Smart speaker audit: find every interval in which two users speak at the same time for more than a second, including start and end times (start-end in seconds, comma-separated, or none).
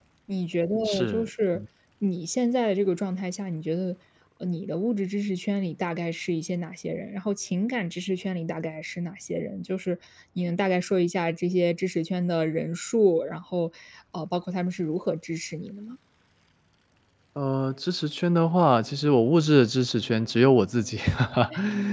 none